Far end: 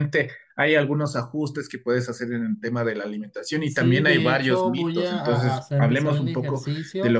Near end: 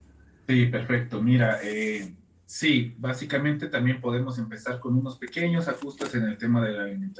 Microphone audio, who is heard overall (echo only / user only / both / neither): user only